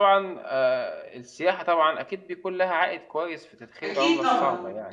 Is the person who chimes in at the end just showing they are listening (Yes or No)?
No